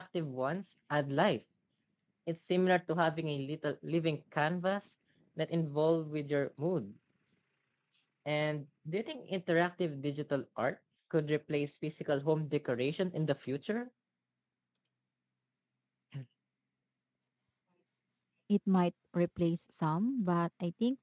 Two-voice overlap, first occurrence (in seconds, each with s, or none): none